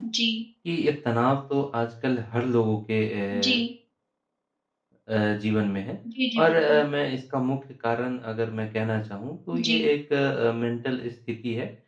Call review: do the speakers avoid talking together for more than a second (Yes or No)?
Yes